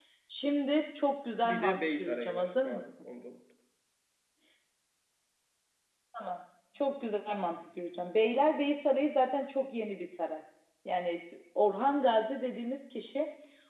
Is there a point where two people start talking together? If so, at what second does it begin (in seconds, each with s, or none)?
1.4 s